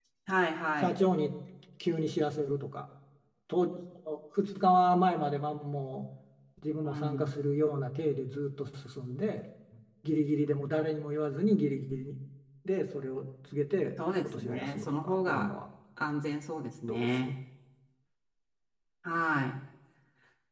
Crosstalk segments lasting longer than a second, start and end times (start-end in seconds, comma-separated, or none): 14.2-15.5